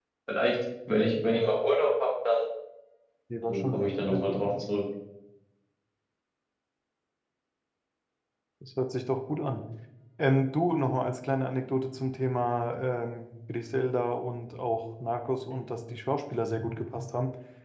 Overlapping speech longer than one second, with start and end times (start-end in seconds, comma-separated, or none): 3.4-4.6